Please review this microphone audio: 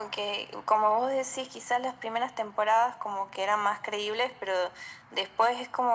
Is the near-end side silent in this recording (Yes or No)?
Yes